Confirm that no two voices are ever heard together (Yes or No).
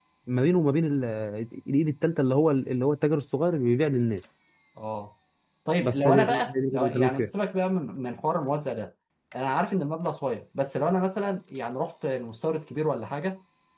No